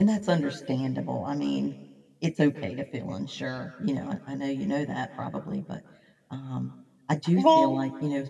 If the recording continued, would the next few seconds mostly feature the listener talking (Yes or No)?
No